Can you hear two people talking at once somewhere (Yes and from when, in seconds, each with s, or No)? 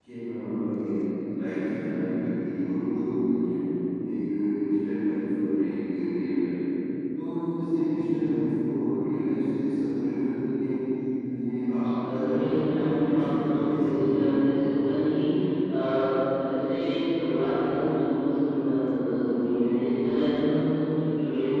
Yes, from 12.0 s